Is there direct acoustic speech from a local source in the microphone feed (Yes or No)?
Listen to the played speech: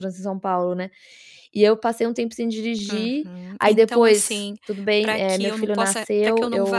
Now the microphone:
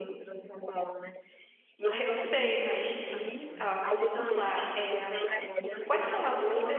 Yes